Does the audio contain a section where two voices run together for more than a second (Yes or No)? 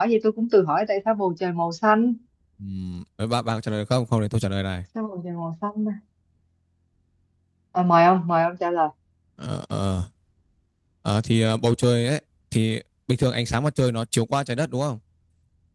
No